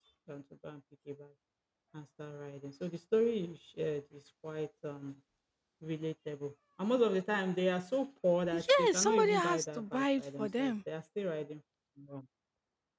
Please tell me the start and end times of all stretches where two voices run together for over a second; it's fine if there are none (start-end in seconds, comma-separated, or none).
8.5-10.7